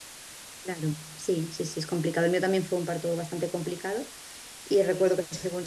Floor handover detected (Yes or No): No